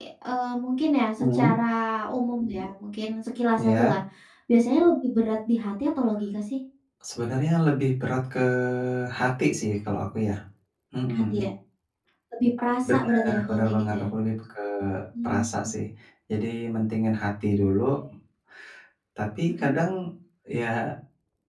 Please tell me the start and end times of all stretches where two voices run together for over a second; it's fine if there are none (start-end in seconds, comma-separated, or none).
12.9-14.1